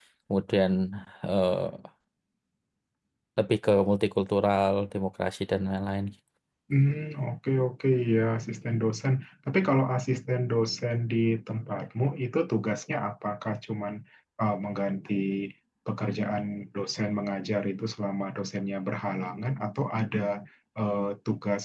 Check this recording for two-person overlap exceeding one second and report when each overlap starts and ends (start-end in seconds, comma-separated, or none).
none